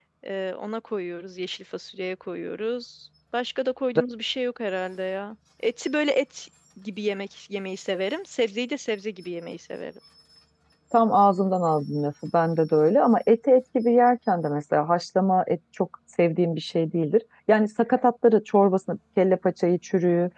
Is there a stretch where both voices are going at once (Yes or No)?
No